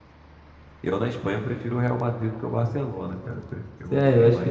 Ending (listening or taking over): taking over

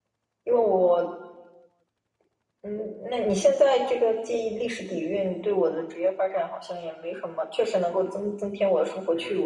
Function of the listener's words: taking over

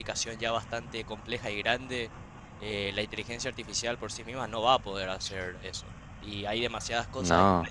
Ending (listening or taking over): listening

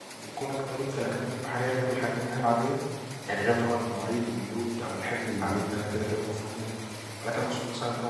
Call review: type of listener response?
listening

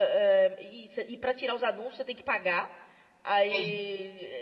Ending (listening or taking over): listening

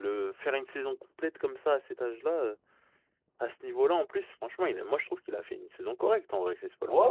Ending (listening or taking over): taking over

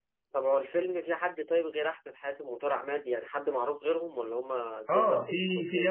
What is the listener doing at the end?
taking over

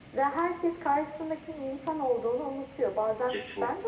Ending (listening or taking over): listening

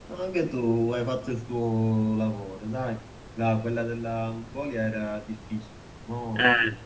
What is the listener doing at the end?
taking over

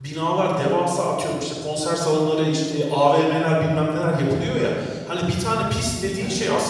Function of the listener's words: listening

